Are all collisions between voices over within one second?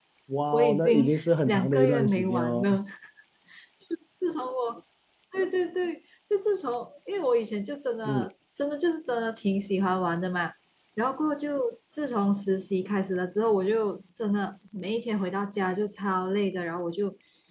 No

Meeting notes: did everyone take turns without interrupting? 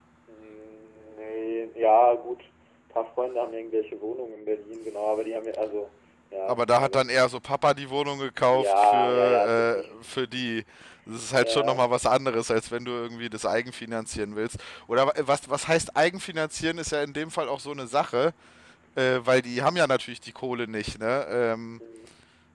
No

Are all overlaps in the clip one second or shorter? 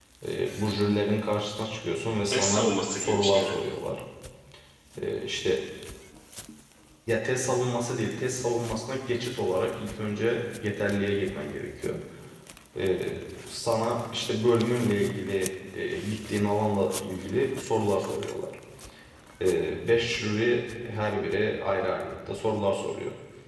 No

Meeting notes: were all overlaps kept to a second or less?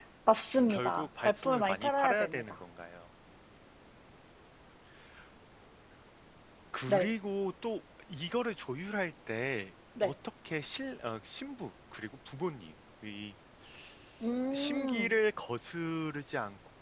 No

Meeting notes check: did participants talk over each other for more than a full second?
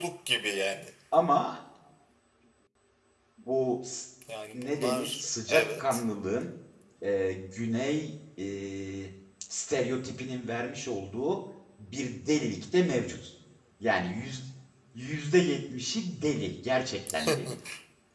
Yes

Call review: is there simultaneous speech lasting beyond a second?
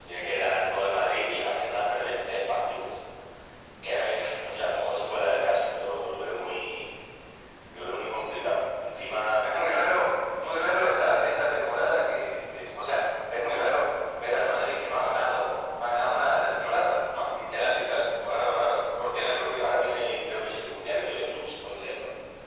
No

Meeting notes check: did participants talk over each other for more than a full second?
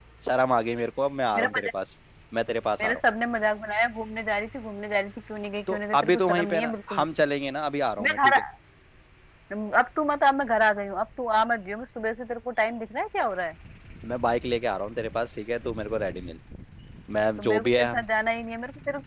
Yes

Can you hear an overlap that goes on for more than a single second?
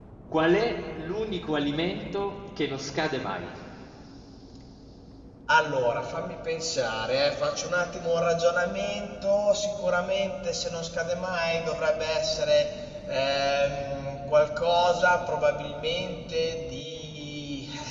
No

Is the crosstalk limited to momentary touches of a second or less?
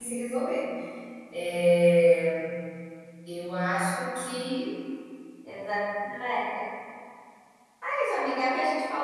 Yes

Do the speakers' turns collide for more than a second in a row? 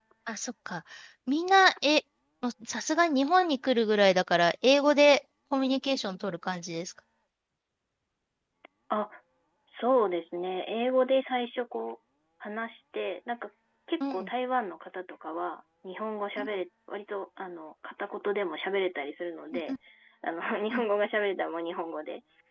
No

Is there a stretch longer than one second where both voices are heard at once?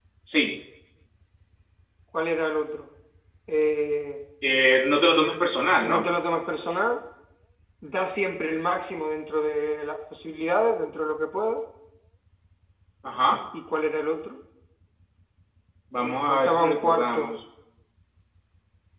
Yes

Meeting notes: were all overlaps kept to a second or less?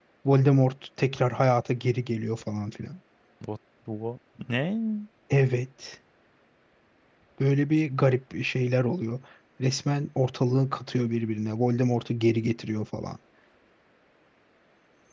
Yes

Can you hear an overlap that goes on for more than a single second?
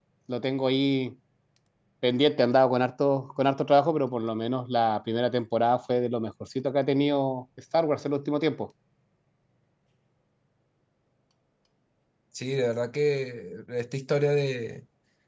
No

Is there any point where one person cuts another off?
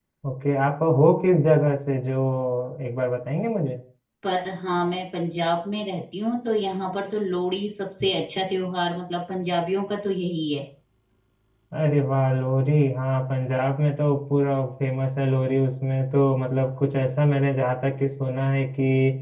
No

